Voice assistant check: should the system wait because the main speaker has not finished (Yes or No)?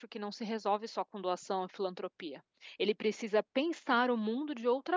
Yes